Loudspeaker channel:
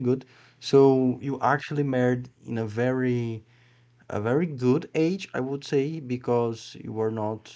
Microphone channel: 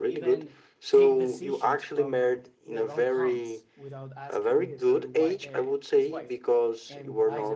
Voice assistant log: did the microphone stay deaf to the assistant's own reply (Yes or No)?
No